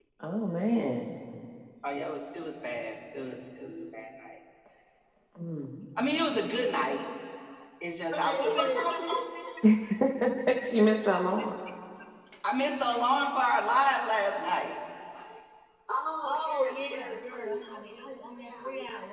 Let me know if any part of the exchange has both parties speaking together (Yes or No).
Yes